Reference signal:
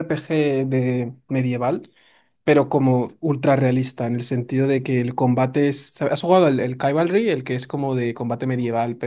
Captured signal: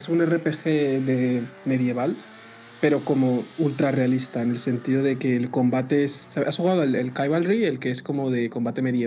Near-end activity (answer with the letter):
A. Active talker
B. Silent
B